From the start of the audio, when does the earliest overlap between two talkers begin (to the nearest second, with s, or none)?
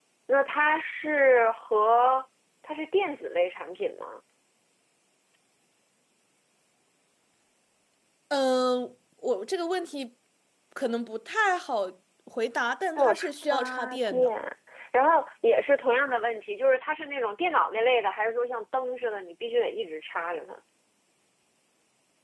13 s